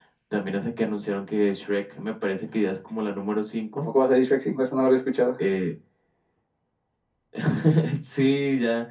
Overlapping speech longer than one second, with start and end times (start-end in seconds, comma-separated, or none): none